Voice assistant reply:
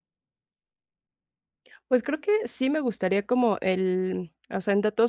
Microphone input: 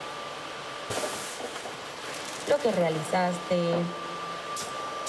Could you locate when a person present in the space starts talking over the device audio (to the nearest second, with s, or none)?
2 s